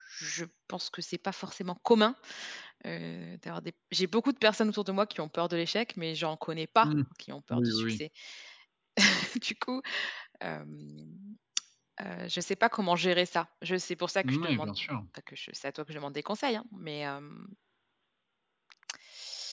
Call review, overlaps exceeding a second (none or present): none